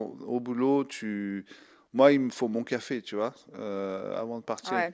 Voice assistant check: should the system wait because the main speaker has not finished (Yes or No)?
Yes